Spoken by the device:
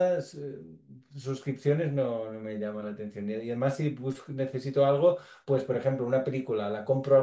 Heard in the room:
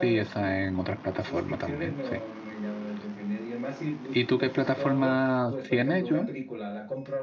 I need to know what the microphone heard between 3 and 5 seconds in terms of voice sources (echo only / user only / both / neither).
both